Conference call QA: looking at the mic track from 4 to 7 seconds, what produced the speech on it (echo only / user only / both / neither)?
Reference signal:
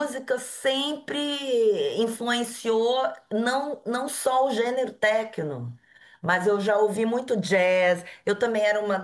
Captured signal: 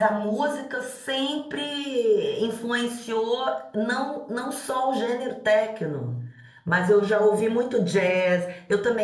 echo only